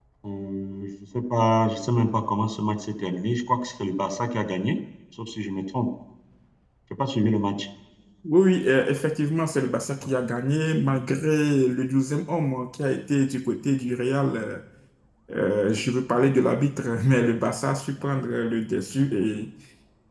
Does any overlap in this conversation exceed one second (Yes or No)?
No